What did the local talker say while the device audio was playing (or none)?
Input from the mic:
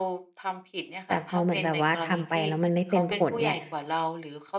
แต่พอเหมือนแบบว่า ทำไปแล้วมันไม่เป็นผลเนี่ย